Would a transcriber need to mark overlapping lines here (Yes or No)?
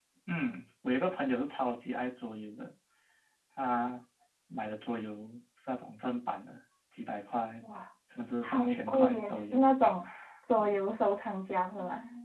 Yes